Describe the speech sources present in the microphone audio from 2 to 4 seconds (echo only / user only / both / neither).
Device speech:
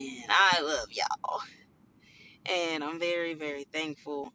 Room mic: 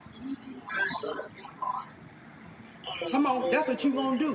both